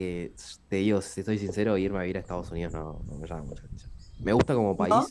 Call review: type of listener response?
listening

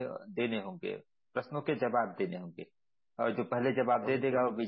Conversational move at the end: listening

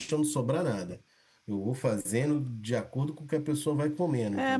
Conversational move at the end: taking over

